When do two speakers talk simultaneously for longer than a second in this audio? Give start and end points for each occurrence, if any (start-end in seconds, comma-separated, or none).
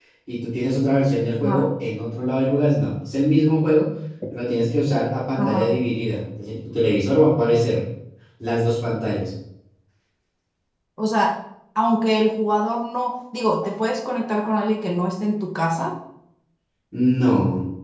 none